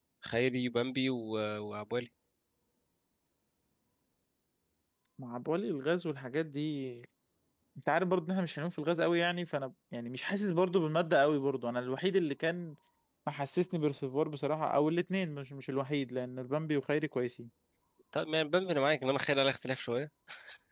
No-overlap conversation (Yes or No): Yes